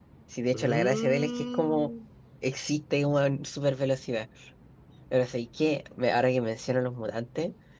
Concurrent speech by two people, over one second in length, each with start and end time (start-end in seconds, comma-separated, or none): 0.5-1.9